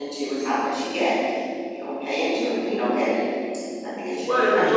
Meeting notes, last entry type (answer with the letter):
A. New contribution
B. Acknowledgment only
A